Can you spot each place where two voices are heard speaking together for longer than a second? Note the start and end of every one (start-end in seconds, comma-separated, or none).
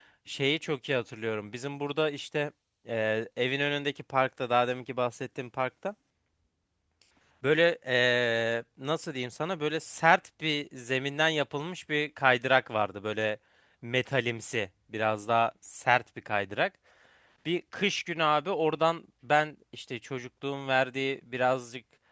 none